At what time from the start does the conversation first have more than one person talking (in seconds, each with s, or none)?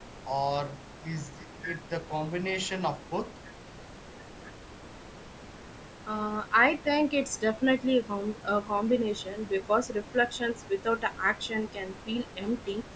none